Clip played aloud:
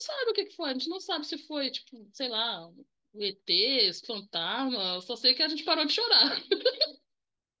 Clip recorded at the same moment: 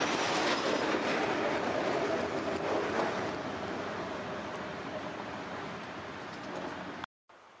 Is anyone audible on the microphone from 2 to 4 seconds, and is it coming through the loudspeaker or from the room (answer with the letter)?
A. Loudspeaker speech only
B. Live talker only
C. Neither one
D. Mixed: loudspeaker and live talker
C